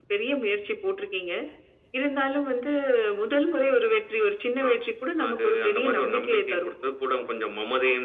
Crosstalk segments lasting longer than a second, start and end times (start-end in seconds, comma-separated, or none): 5.3-6.7